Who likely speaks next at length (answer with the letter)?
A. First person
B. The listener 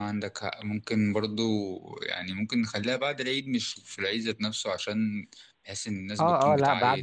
B